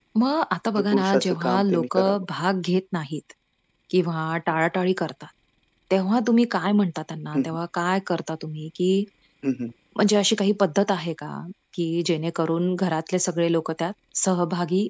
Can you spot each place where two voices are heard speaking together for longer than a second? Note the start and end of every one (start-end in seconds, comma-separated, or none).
0.8-2.2